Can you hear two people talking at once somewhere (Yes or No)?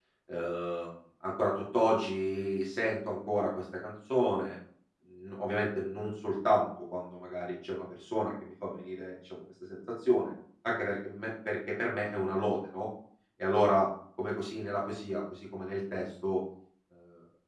No